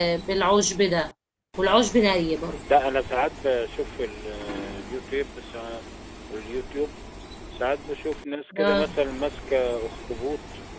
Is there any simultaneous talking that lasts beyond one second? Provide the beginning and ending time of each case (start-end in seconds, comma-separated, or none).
none